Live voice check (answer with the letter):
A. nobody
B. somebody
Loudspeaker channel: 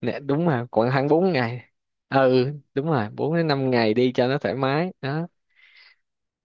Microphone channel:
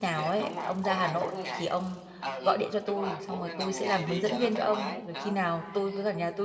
B